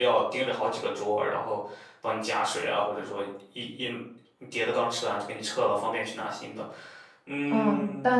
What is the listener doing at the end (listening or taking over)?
taking over